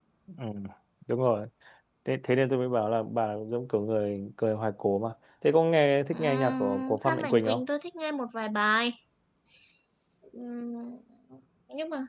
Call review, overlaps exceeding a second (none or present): present